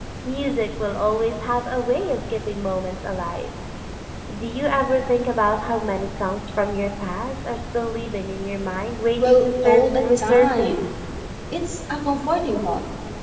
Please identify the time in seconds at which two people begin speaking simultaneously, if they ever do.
9.2 s

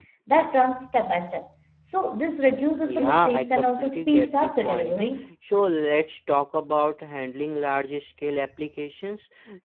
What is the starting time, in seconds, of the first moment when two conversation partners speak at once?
2.8 s

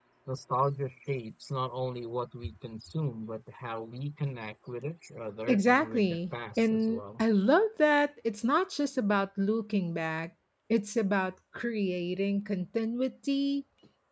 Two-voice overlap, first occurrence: 5.5 s

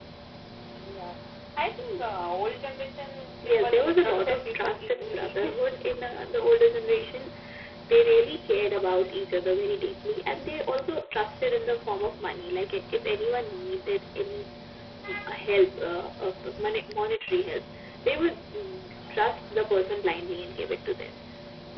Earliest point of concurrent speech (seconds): 3.4 s

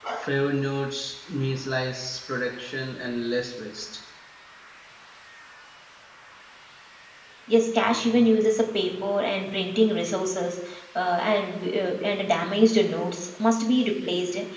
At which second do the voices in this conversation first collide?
none

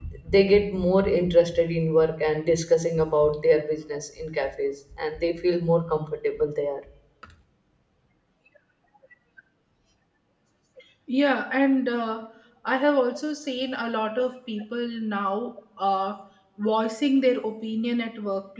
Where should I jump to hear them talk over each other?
none

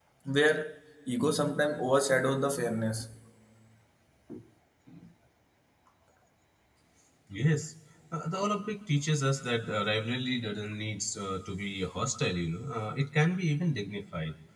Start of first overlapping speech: none

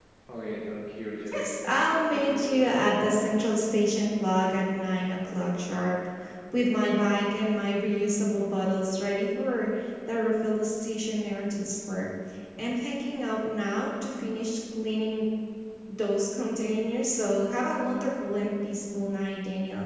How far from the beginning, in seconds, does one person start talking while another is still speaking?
1.2 s

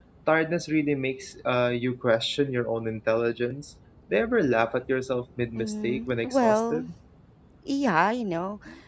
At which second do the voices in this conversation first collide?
5.5 s

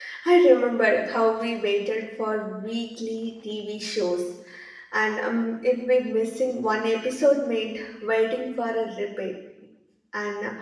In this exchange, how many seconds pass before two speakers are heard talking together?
none

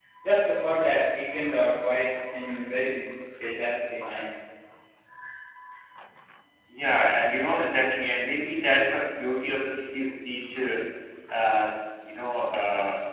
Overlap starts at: none

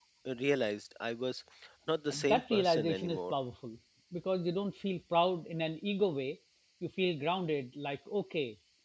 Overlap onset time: 2.1 s

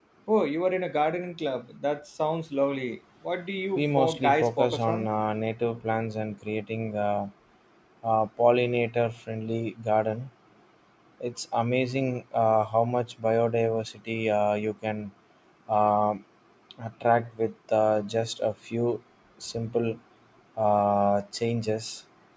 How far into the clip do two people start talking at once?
3.8 s

